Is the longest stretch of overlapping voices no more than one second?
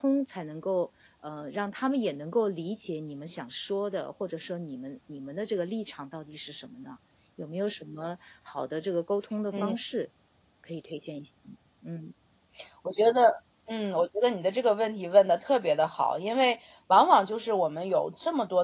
Yes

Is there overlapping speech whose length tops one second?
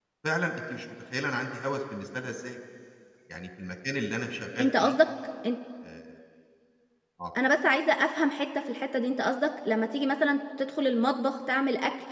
No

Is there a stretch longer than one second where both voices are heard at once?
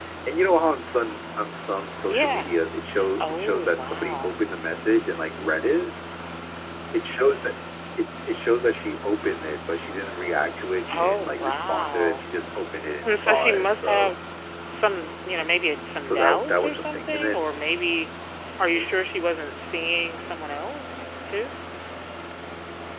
Yes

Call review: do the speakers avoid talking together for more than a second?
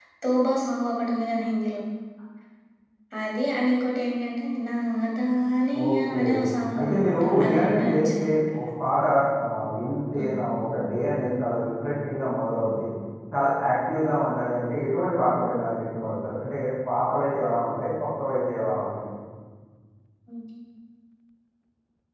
No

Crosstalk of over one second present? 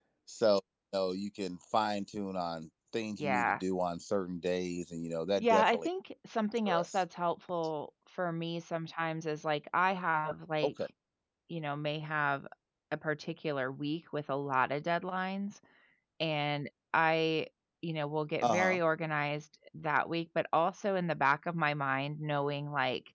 No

